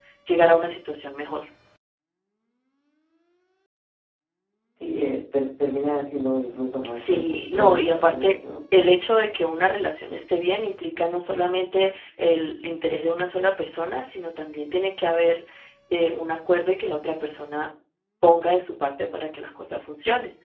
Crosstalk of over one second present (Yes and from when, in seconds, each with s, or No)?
Yes, from 6.9 s